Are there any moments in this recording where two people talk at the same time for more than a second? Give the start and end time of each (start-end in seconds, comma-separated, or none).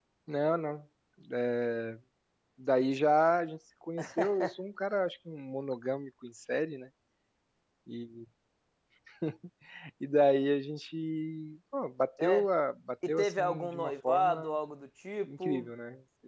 13.1-14.6